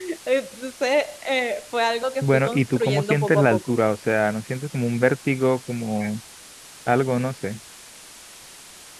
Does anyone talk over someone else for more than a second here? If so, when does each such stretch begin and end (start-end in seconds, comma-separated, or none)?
2.2-3.7